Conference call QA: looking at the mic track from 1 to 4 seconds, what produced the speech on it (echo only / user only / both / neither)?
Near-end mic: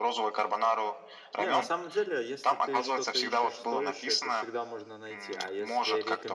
both